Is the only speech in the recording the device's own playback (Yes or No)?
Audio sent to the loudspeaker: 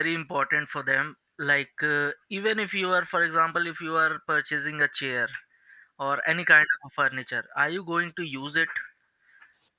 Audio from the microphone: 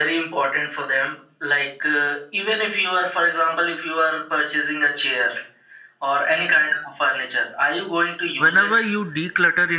No